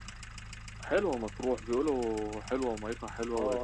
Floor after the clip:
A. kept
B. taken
B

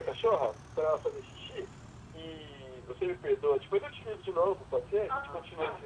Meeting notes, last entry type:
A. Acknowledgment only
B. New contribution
B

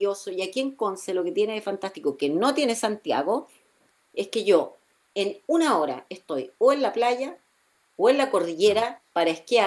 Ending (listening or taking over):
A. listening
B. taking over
A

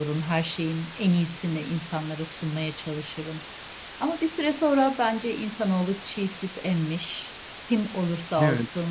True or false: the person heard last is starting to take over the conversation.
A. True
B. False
B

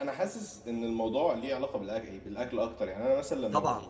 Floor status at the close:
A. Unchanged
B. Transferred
B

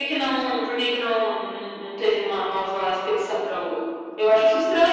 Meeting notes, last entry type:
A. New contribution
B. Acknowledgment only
A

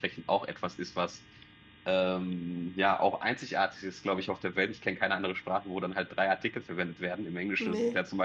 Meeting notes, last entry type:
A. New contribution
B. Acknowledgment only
B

